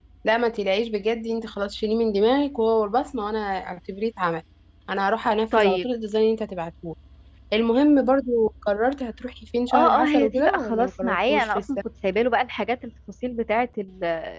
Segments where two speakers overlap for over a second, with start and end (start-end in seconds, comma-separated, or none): 9.7-11.6